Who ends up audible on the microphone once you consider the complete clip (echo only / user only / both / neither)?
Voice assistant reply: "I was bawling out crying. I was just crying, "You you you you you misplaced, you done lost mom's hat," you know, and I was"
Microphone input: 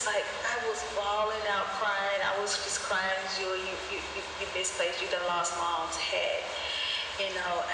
echo only